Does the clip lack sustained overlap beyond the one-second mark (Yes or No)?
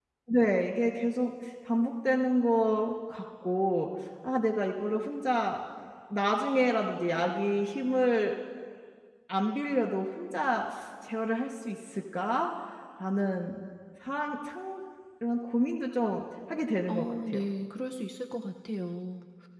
Yes